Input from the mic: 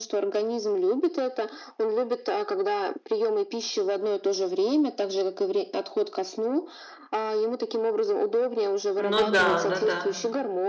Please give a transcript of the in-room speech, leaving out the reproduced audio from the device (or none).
Ну да, да, да.